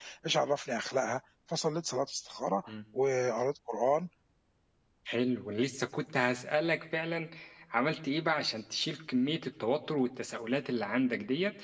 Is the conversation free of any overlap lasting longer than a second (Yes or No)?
Yes